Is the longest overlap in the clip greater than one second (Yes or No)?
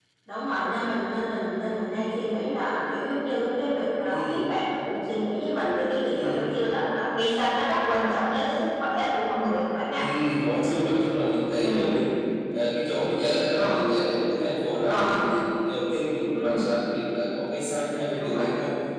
No